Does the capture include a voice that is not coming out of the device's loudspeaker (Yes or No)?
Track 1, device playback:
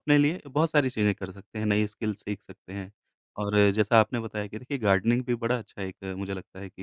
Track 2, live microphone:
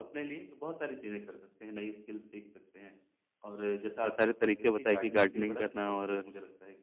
Yes